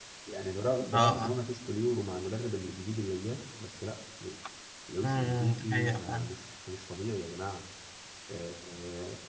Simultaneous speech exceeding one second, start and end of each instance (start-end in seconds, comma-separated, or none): 5.0-6.3